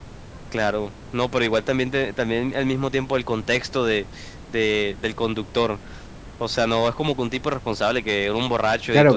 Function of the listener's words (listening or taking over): taking over